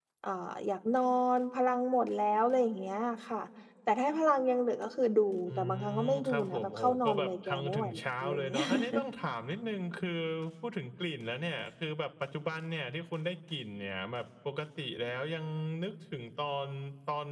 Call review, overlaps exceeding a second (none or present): present